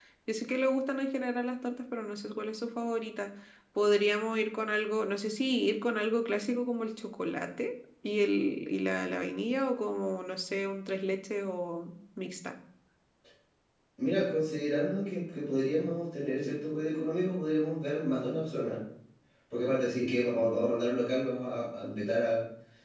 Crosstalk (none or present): none